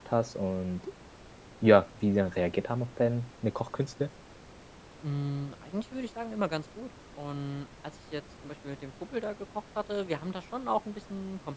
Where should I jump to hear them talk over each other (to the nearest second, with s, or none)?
none